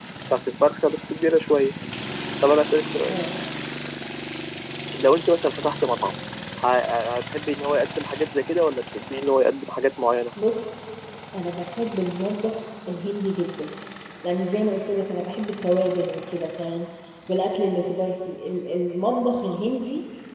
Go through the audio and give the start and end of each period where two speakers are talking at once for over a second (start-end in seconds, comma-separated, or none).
none